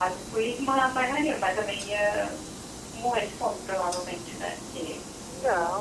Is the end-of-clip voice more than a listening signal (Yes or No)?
No